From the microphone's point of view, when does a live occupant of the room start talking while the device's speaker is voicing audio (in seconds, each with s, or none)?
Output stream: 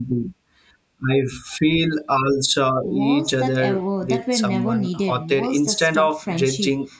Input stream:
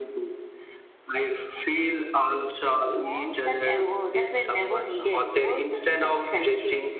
none